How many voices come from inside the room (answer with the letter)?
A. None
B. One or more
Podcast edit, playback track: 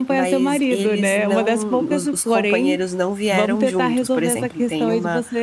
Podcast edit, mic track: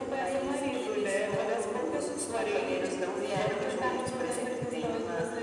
A